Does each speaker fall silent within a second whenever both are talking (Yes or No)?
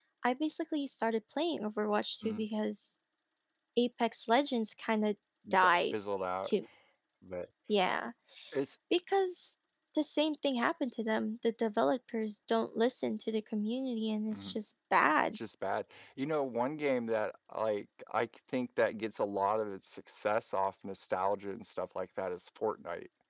Yes